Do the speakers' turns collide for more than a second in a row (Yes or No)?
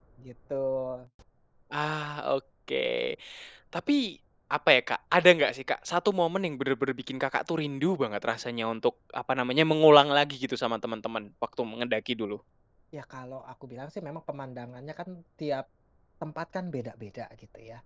No